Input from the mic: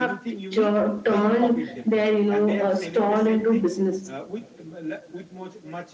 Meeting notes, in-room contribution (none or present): present